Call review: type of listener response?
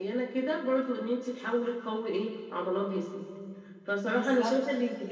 listening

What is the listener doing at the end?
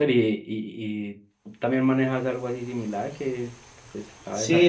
taking over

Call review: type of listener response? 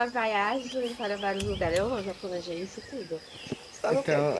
taking over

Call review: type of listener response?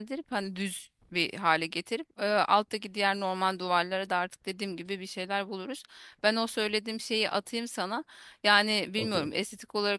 listening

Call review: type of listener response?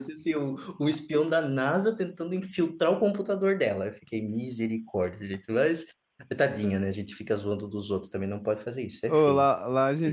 taking over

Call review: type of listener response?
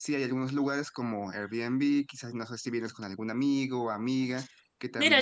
taking over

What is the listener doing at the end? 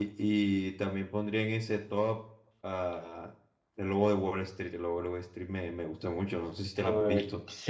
taking over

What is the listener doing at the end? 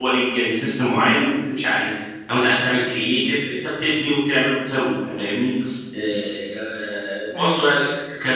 listening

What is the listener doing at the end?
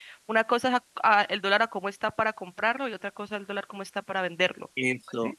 taking over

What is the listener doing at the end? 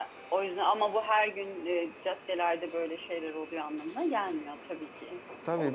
taking over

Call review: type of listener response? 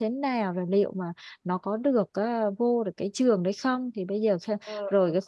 listening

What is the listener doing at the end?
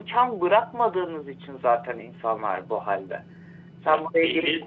listening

